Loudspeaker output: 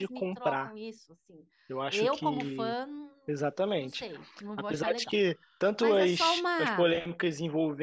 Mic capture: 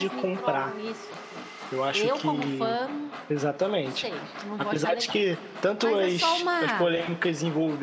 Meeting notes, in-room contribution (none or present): none